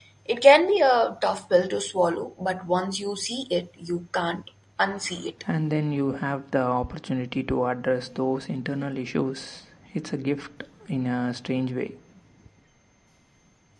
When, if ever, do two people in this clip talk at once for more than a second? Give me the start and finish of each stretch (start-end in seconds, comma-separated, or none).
none